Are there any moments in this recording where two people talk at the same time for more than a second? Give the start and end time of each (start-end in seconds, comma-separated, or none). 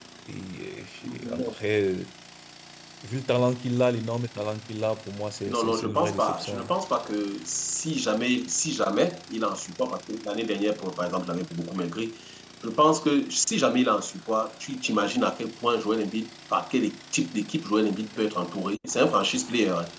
5.5-6.7